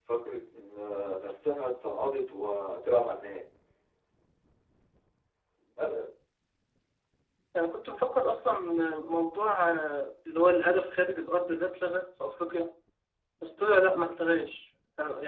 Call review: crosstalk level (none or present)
none